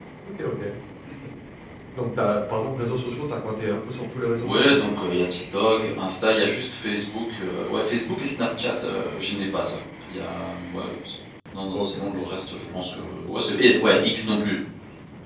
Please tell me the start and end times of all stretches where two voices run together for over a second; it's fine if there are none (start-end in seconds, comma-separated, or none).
none